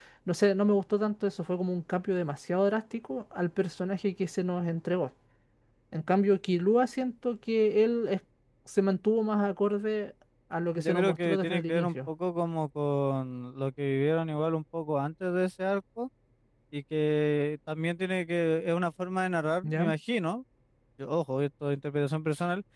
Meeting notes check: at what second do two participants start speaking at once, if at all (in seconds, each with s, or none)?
10.7 s